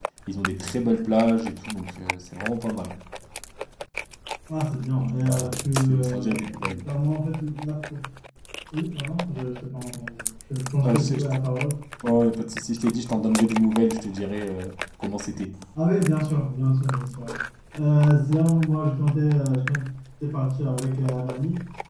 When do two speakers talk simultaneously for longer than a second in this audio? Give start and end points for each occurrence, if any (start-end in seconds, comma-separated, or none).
4.9-6.3